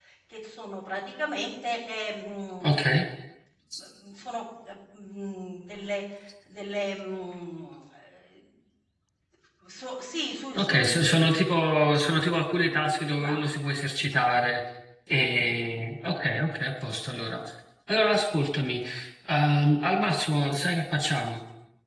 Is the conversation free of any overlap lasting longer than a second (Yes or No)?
Yes